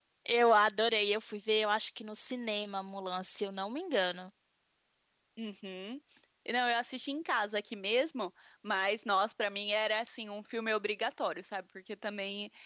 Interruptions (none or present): none